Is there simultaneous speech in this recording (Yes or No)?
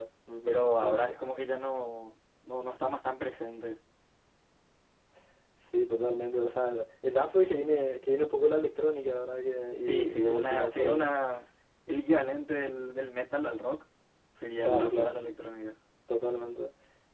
Yes